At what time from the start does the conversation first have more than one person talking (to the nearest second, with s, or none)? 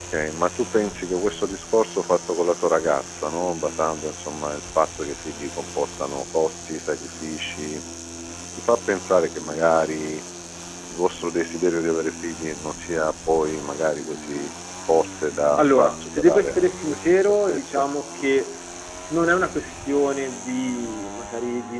16 s